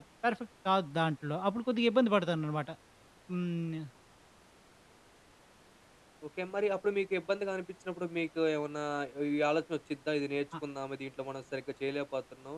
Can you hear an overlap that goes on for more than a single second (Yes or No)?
No